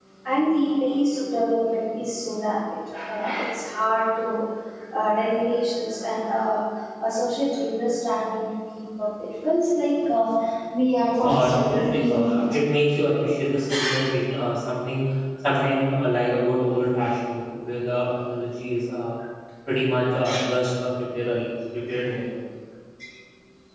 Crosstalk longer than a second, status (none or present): present